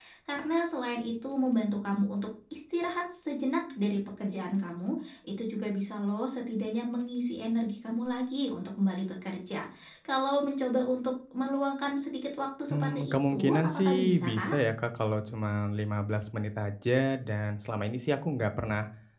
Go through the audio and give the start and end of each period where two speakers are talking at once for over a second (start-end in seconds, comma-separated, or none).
12.7-14.6